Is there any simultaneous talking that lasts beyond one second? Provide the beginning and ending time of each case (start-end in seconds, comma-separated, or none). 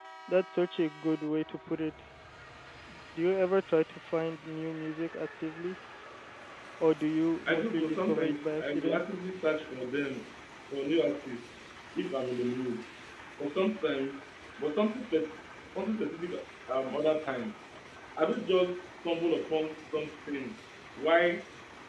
7.5-9.0